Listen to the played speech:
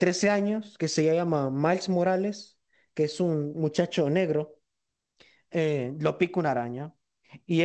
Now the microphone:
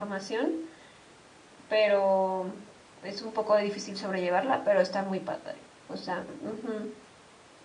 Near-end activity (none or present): present